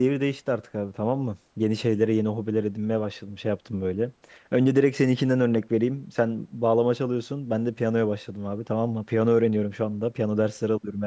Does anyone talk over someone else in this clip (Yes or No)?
No